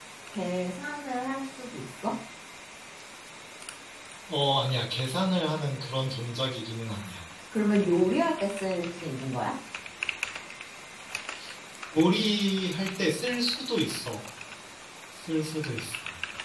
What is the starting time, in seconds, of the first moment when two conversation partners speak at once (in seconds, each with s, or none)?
none